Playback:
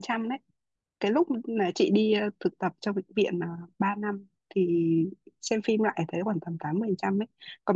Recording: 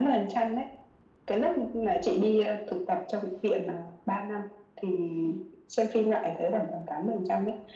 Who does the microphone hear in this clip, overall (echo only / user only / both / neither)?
echo only